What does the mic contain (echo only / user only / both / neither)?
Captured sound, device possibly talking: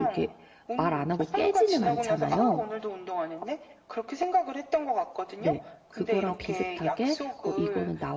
both